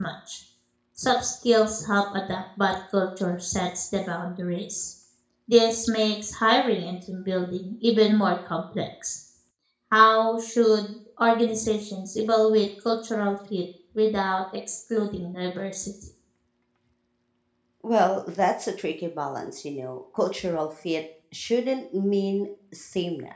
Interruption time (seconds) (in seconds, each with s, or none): none